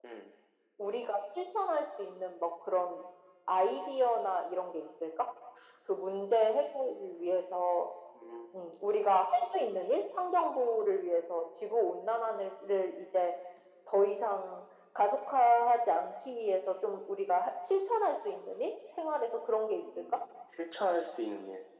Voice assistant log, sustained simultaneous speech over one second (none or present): none